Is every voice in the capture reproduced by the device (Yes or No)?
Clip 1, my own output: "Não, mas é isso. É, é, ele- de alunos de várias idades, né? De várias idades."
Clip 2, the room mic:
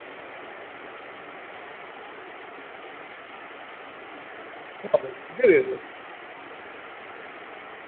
No